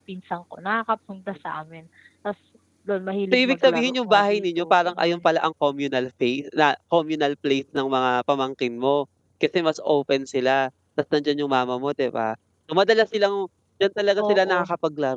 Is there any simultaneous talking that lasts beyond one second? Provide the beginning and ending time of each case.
3.3-5.2

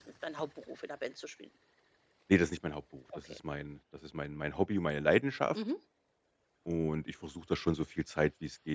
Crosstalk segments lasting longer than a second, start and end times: none

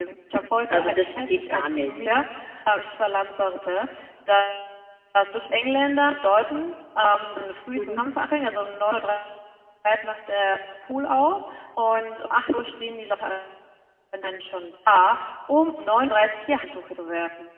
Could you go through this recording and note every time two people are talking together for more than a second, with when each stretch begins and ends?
0.7-1.9

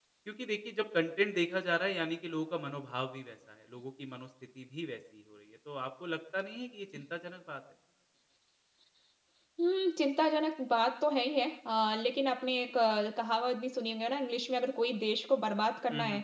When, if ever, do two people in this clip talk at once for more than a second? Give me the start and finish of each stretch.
none

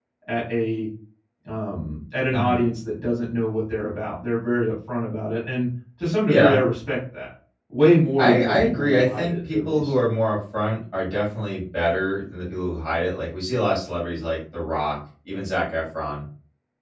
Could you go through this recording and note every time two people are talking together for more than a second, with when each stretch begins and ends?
8.2-9.9

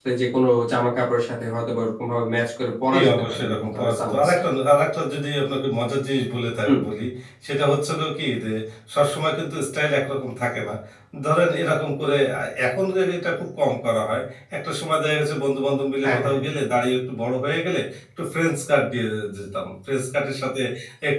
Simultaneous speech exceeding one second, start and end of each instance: 2.9-4.4

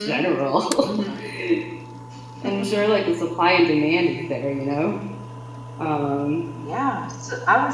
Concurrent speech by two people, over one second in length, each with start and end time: none

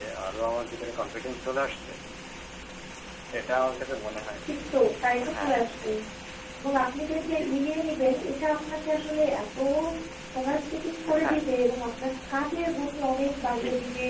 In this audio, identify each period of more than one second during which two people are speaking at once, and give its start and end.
none

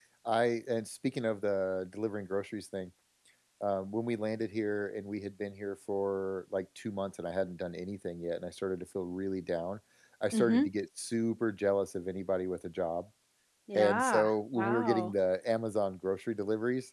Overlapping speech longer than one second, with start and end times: 13.8-15.1

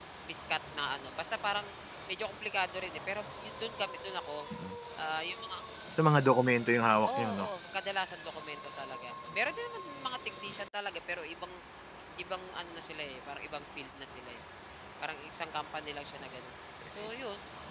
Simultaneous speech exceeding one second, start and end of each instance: none

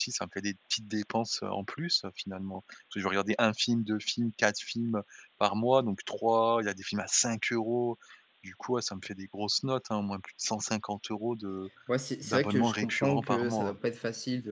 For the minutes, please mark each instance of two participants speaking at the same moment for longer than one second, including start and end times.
12.2-13.8

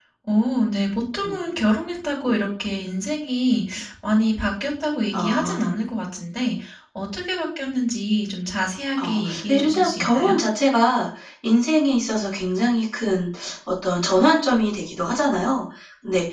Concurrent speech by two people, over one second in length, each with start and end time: 9.0-10.4

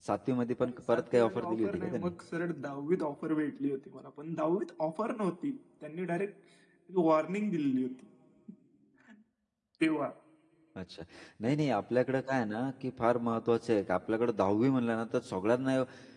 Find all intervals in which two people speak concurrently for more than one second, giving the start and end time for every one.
0.6-2.1

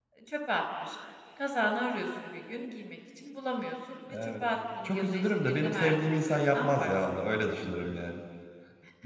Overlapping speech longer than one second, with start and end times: 4.8-6.9

